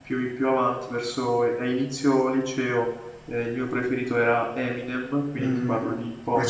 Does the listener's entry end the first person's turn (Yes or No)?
Yes